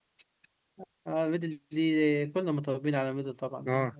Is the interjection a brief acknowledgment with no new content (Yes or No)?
No